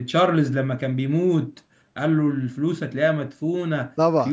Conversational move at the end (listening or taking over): taking over